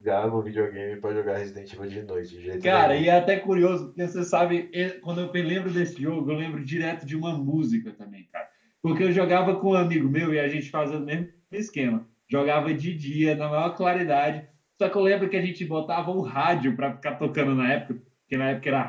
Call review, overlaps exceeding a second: none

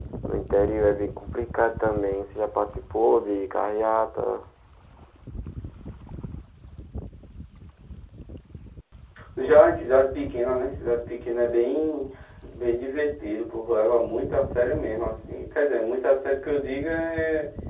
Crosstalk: none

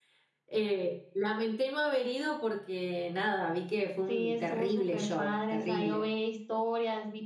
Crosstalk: present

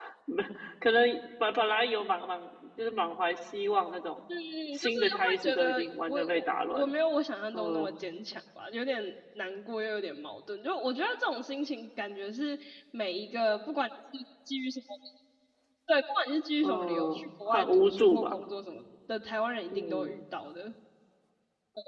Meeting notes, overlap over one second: present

